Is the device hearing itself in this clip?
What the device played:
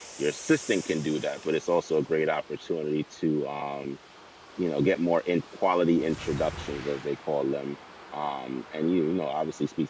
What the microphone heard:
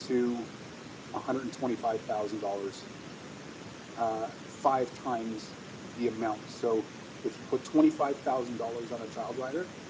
No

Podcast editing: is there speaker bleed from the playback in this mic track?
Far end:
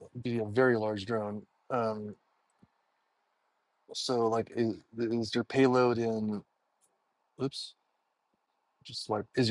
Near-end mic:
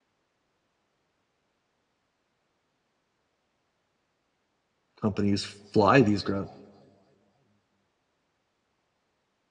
No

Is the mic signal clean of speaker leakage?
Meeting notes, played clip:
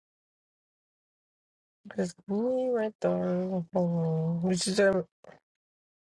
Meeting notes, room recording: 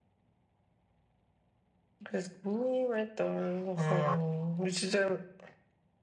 No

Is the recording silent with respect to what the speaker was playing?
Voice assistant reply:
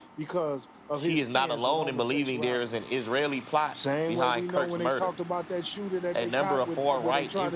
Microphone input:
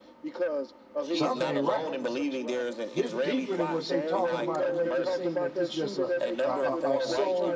No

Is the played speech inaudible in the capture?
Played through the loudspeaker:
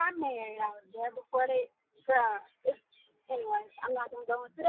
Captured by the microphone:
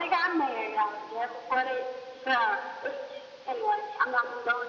No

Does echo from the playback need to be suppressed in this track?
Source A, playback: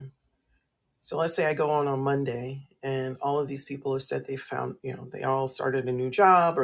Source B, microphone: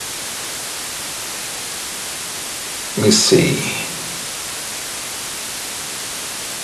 No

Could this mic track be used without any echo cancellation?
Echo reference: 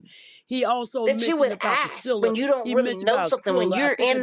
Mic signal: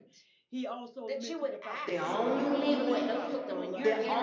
No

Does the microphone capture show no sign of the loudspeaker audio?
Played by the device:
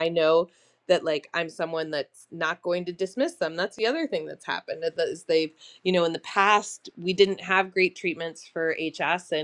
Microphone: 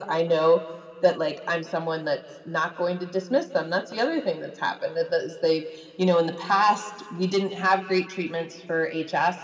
No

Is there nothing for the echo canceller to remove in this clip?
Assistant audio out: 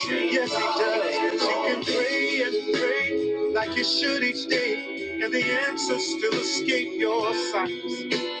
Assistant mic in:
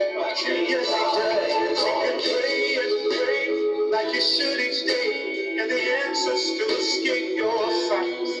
No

